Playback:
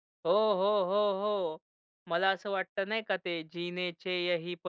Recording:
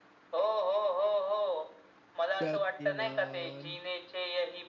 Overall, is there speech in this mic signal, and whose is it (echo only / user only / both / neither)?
both